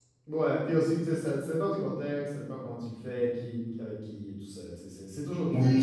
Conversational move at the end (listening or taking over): taking over